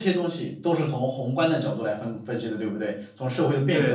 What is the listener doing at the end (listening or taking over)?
taking over